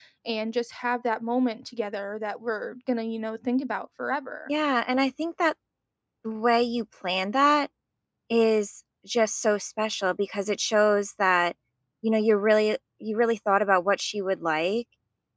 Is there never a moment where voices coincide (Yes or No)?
Yes